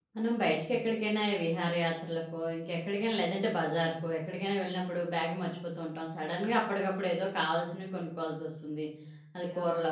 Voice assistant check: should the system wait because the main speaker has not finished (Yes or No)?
Yes